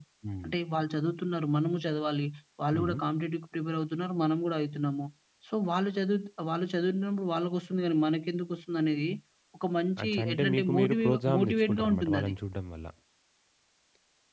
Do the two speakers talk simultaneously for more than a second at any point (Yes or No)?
Yes